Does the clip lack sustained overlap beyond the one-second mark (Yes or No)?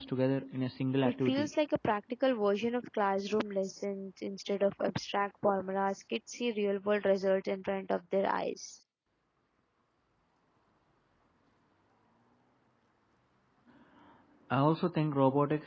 Yes